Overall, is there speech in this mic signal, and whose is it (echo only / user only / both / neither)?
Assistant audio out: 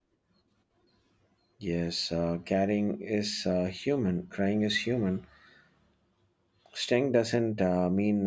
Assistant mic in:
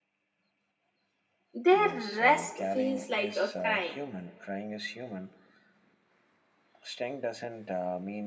both